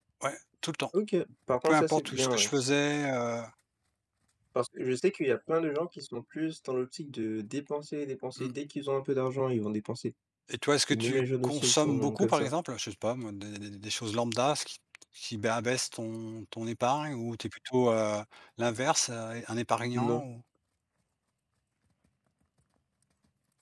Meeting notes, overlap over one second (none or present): present